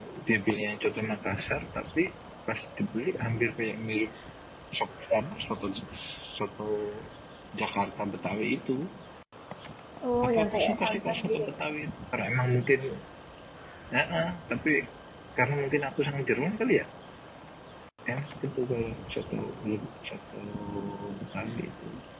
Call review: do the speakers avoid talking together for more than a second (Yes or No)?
No